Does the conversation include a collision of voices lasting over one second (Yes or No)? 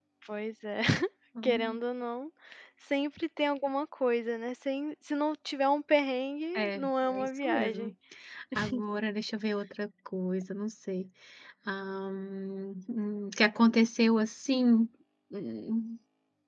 Yes